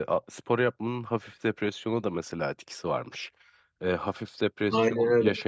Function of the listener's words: listening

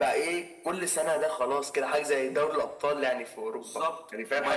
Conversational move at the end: taking over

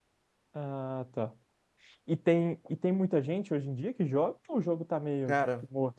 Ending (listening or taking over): taking over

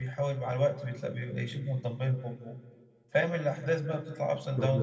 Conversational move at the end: taking over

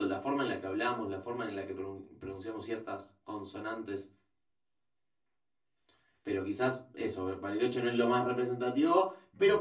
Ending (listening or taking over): listening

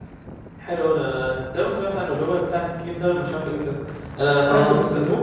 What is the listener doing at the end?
listening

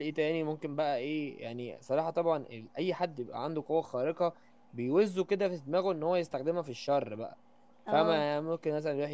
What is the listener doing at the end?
listening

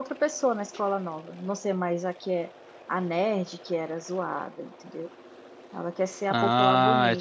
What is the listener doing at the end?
taking over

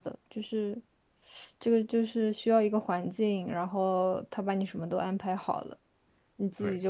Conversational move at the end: listening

